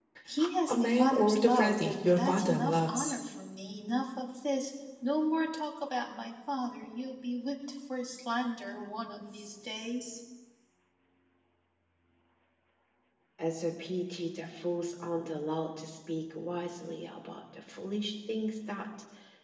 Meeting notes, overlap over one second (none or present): present